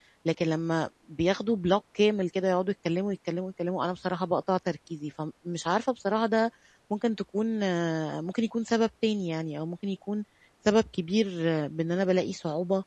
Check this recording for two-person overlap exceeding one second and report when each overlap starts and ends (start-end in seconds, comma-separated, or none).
none